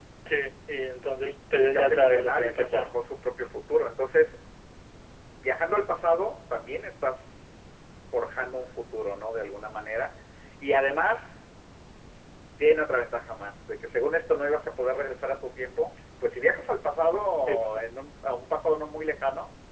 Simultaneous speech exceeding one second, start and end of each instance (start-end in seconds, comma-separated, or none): 1.2-2.9